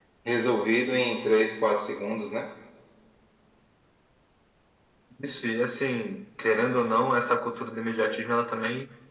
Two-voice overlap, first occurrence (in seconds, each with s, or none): none